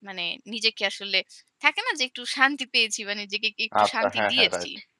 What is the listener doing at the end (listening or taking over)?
taking over